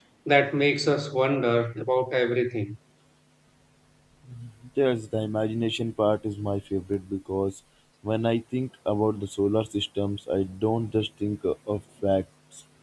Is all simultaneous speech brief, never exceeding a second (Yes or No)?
Yes